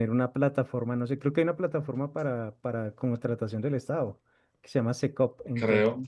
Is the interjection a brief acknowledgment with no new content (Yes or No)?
Yes